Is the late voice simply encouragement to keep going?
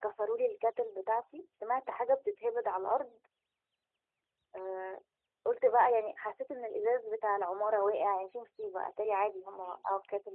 No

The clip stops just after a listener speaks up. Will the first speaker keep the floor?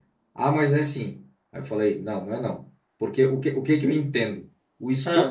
Yes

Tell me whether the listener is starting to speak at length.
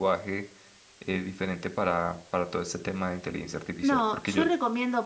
Yes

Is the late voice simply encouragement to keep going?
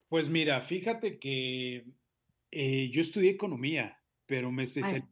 Yes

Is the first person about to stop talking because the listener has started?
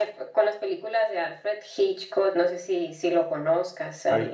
Yes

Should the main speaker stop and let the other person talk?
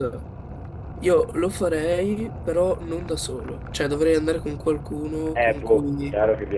Yes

